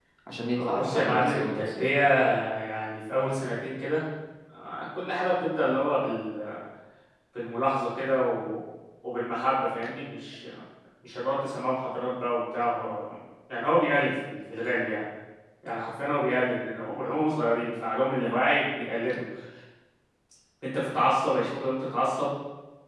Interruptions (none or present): present